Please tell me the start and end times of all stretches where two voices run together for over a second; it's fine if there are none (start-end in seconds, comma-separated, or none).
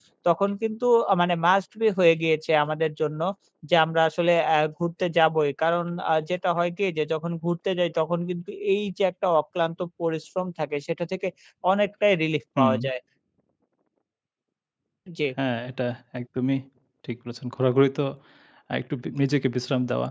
none